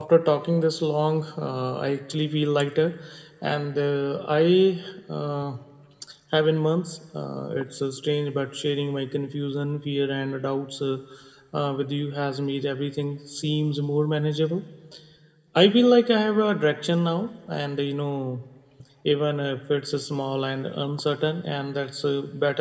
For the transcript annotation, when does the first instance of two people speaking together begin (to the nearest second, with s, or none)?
none